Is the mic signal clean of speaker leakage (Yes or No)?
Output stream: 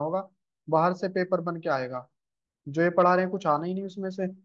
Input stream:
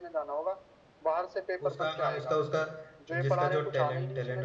No